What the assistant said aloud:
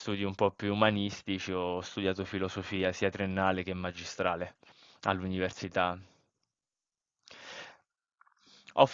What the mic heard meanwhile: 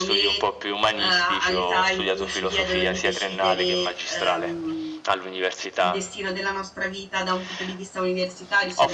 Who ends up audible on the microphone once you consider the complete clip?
both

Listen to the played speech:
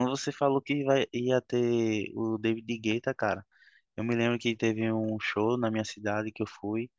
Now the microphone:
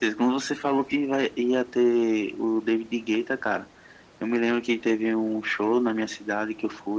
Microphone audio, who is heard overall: echo only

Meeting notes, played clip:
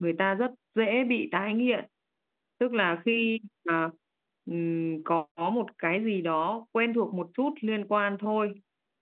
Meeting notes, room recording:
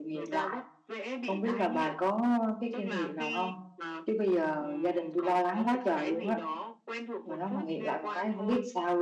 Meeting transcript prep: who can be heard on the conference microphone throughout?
both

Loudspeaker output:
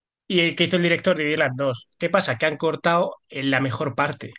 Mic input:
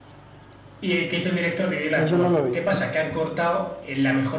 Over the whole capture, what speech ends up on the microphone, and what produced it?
both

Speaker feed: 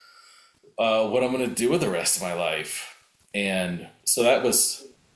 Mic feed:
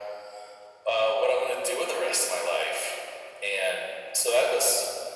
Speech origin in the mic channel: echo only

